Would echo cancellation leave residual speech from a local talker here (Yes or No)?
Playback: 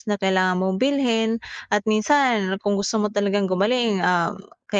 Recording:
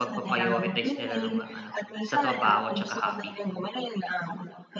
Yes